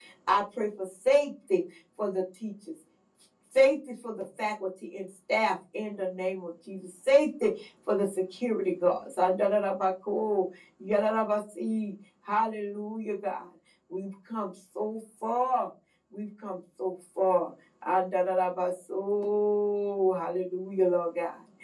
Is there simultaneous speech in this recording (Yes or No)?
No